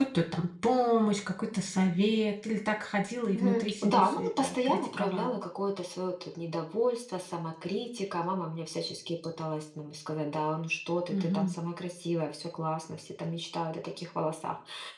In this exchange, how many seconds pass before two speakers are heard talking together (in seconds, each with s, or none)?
3.3 s